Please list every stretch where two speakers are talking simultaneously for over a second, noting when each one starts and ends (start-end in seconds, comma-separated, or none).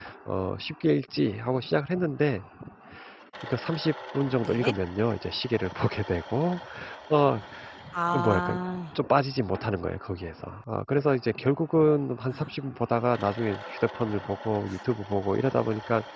none